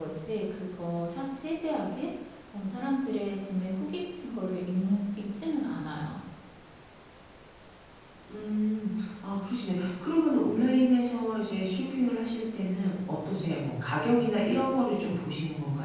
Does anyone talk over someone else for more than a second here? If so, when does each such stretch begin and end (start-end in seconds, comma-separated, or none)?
none